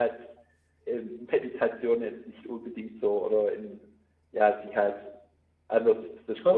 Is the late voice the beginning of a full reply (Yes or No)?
No